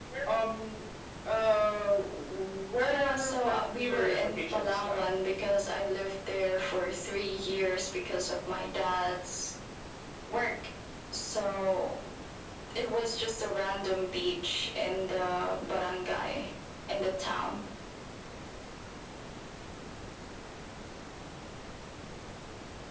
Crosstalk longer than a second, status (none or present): present